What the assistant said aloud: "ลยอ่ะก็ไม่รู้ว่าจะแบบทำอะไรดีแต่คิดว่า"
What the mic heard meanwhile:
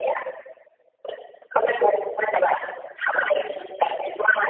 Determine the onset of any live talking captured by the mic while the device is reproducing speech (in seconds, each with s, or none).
none